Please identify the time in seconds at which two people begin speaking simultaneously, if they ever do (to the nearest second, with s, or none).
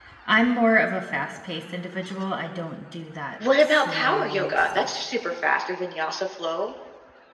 3 s